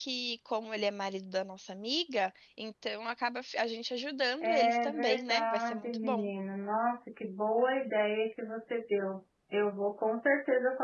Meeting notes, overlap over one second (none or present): present